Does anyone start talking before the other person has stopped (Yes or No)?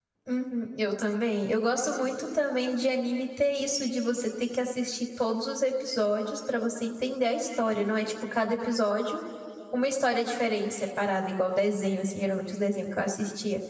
No